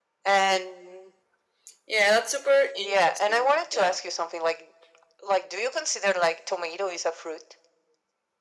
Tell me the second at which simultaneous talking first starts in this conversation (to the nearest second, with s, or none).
3 s